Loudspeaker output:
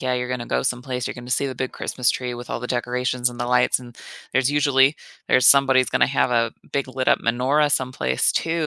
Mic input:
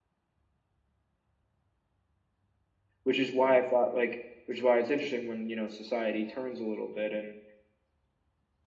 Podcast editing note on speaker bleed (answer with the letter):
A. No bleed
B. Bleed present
A